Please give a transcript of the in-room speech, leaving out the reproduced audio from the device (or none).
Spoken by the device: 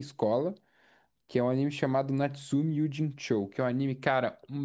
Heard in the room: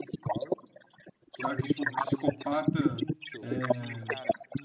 saca? Tipo, um psicopata, é,